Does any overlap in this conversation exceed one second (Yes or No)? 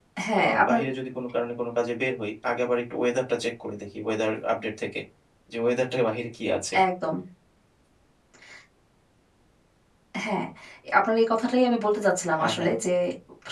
No